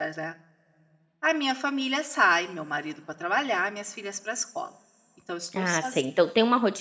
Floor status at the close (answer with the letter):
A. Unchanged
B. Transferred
B